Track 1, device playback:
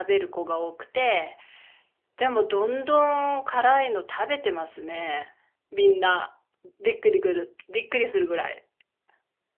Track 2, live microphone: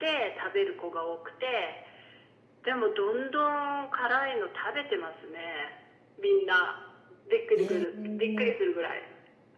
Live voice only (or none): えー、